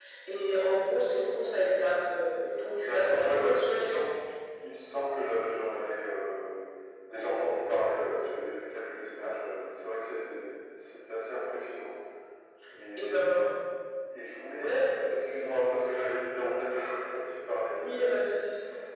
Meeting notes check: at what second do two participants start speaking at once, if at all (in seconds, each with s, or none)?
2.8 s